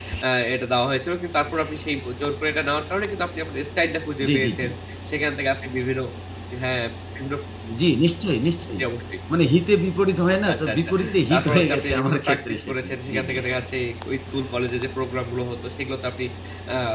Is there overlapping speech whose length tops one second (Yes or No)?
Yes